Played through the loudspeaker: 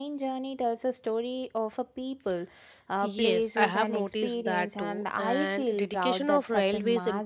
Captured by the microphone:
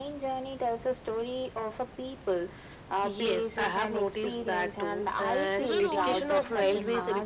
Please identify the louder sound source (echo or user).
echo